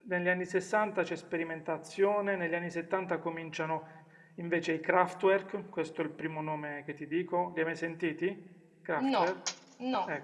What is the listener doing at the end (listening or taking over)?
taking over